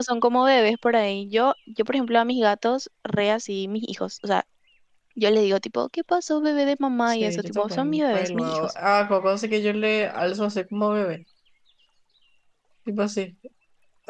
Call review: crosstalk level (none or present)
present